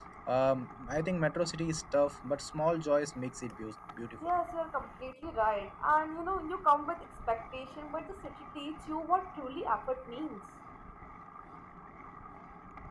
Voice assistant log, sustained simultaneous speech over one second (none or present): none